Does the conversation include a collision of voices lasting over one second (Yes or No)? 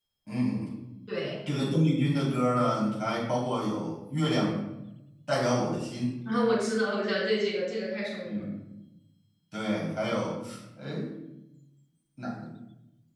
No